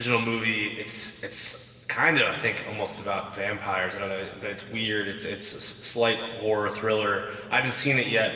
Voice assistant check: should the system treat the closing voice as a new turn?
No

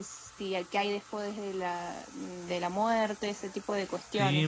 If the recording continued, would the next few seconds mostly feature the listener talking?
Yes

